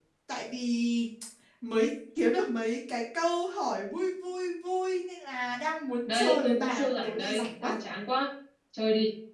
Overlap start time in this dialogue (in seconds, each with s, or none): 6.0 s